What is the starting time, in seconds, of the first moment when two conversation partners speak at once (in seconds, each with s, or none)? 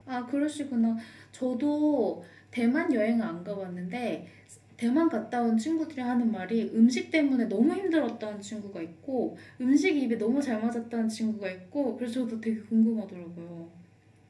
none